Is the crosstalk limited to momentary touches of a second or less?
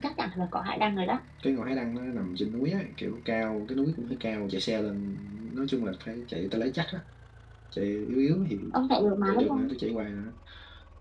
Yes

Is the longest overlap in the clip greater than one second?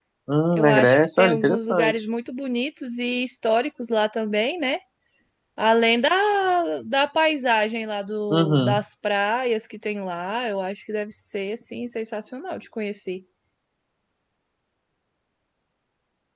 Yes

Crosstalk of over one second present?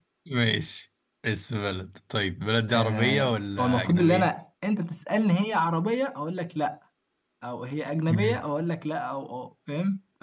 Yes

